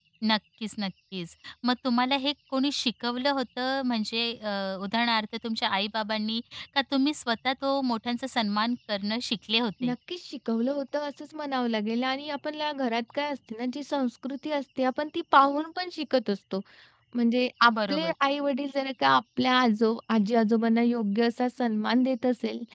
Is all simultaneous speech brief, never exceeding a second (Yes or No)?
Yes